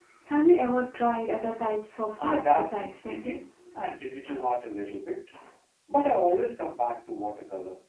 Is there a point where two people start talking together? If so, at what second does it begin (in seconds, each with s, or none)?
2.2 s